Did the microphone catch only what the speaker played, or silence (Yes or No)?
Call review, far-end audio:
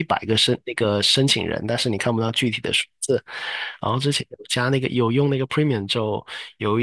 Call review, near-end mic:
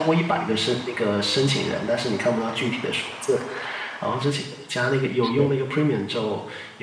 No